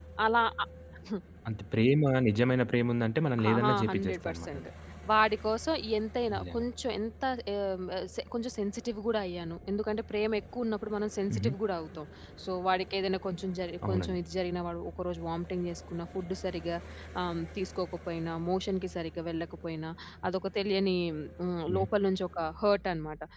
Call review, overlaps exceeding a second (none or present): present